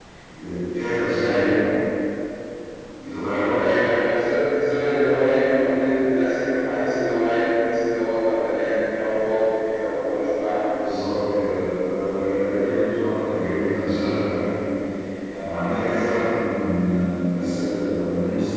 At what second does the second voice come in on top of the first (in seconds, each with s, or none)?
none